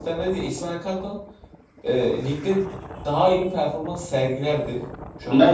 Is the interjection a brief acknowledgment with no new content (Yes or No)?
No